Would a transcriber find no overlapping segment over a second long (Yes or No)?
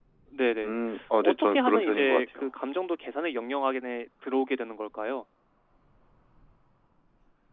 No